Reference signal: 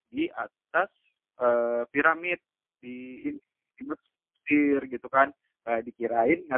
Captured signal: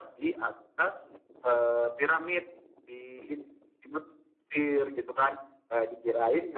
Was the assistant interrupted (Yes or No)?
No